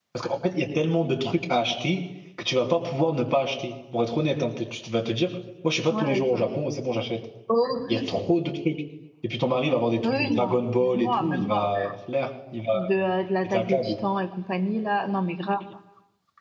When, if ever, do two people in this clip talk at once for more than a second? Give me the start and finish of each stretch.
10.0-11.9

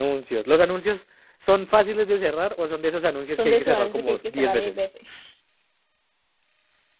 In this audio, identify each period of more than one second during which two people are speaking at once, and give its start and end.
3.3-4.7

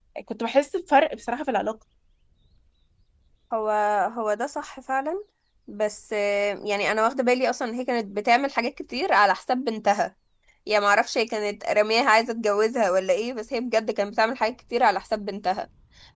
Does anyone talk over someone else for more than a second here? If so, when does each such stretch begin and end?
none

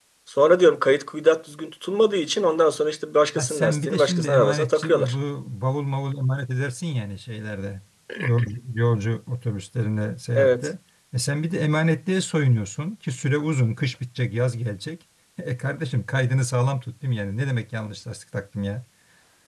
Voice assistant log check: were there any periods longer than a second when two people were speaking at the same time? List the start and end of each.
3.4-5.1

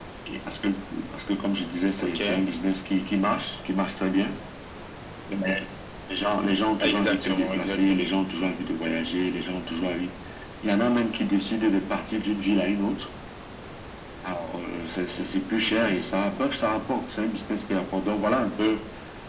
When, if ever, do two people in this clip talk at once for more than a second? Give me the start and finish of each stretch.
6.8-8.0

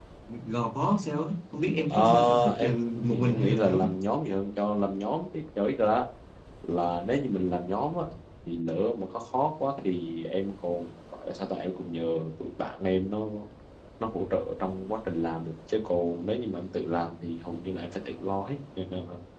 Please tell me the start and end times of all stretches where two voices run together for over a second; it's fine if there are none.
1.9-3.9

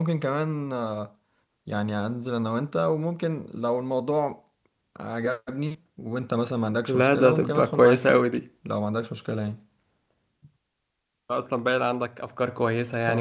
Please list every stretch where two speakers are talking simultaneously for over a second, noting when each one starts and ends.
6.9-8.2

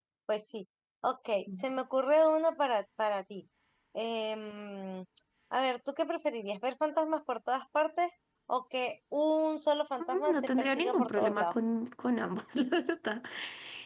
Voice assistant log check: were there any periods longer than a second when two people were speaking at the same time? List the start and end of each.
10.3-11.6

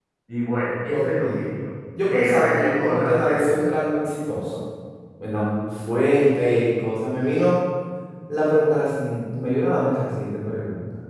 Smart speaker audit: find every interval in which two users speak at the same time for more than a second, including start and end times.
2.1-3.7

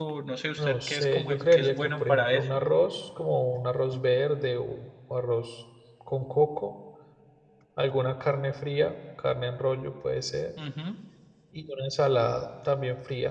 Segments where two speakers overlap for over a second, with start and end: 0.6-2.5

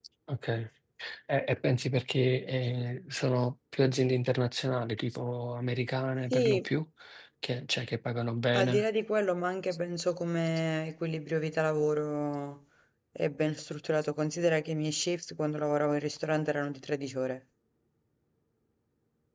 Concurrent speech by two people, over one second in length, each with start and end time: none

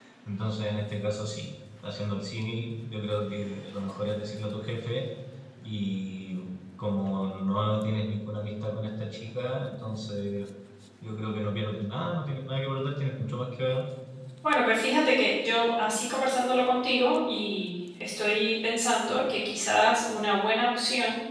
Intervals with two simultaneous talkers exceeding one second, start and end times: none

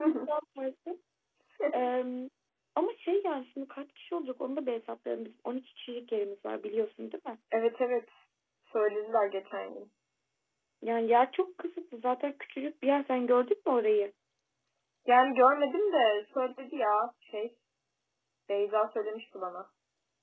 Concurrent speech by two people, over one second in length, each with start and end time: none

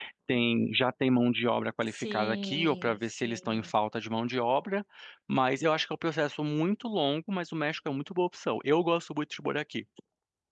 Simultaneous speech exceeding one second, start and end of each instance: 1.9-3.7

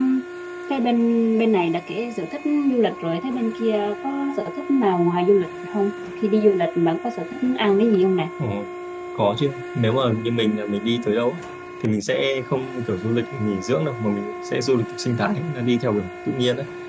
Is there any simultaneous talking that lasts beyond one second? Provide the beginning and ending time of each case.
none

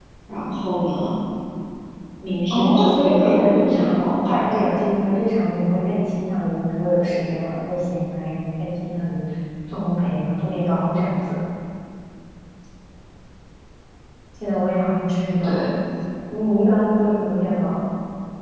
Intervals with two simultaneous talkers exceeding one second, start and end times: 2.5-4.6

